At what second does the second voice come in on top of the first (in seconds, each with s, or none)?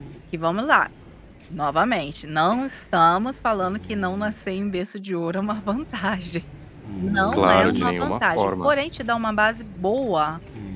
7.3 s